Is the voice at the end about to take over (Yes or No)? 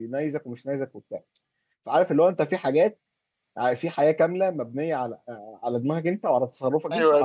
Yes